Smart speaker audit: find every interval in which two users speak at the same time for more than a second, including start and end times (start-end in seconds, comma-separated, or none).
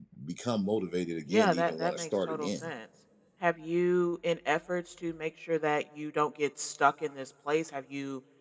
1.3-2.7